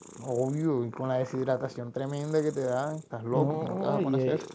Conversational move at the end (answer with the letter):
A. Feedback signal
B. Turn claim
B